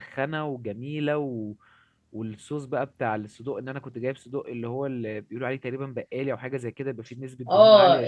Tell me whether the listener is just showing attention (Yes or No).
No